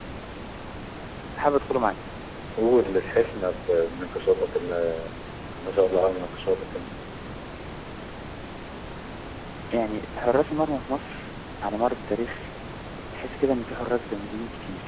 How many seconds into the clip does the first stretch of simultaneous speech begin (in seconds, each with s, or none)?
none